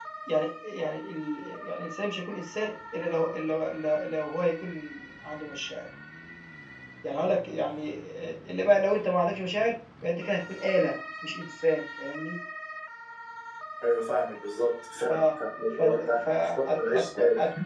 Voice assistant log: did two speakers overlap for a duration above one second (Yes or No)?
Yes